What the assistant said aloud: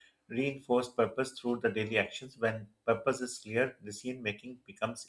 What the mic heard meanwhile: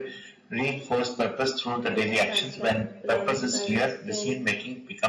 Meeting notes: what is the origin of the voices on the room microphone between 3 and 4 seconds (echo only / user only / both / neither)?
both